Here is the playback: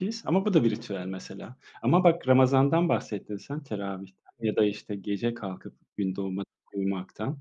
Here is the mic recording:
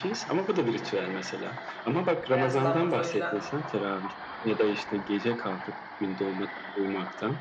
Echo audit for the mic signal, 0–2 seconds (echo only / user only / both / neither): echo only